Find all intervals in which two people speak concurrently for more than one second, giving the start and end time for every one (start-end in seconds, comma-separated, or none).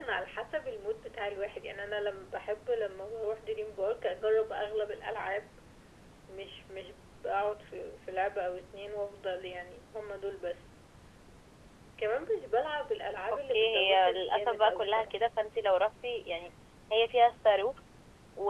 13.5-15.1